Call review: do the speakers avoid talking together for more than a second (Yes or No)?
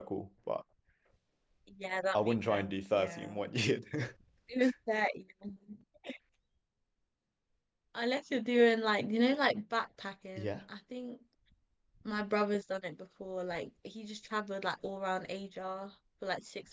No